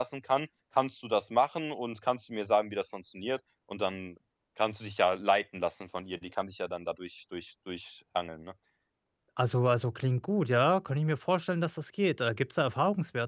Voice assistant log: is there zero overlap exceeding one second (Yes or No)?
Yes